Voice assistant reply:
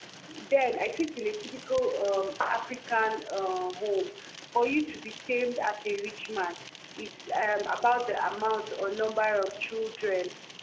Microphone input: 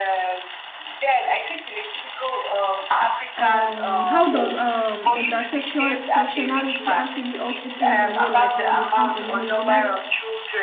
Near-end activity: present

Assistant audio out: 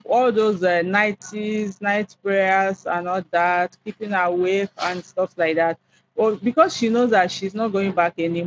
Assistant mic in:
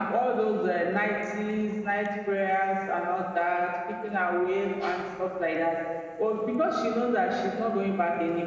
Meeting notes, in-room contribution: none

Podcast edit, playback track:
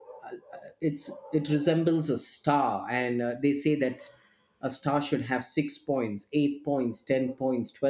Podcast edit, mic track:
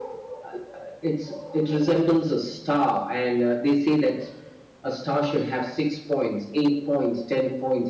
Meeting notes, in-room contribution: none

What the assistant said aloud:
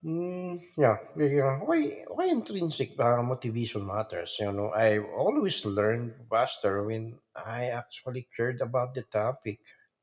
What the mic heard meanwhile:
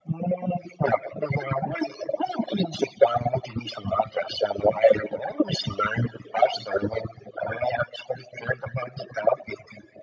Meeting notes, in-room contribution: none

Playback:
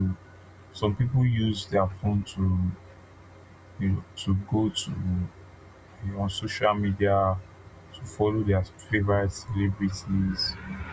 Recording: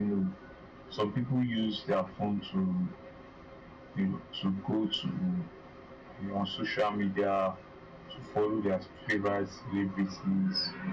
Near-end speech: none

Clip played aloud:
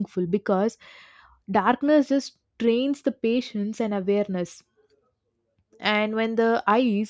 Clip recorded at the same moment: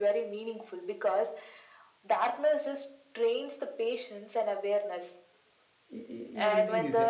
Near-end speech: present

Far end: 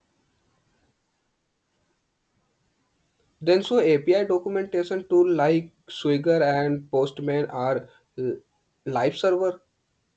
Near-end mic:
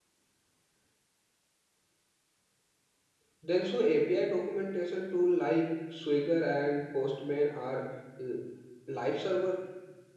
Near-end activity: none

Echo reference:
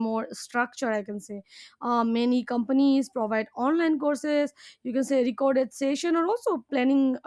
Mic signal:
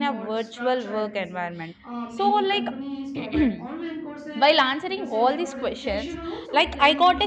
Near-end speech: present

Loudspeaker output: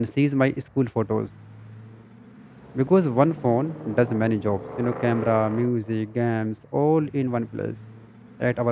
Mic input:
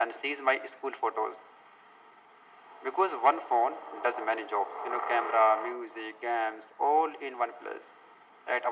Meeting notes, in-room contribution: none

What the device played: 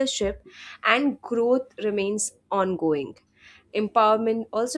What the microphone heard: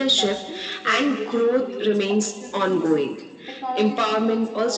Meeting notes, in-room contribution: present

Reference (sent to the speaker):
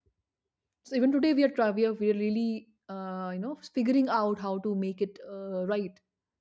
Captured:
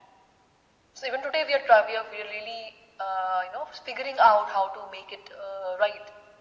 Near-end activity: none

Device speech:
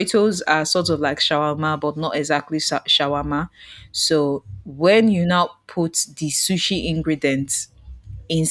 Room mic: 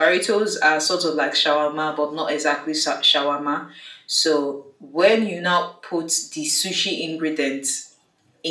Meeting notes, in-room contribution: none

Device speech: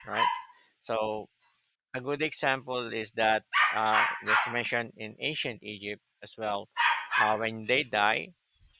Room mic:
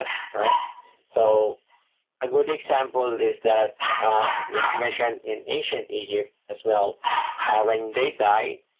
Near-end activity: none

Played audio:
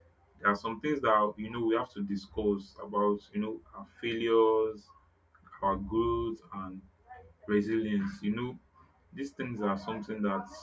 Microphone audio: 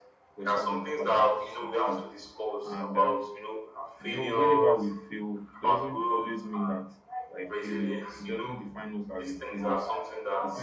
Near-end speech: present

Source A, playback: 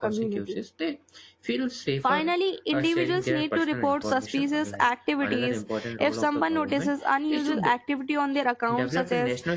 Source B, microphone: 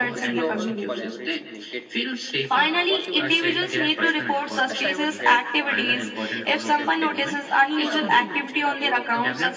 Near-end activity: present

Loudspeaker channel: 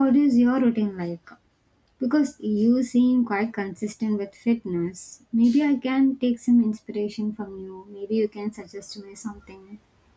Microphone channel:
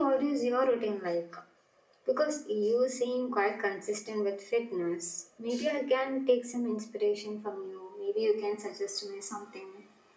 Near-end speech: none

